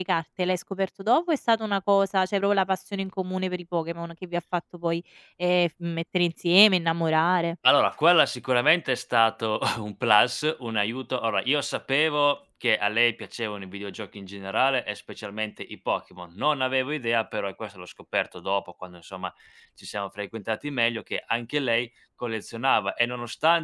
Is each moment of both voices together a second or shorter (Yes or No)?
Yes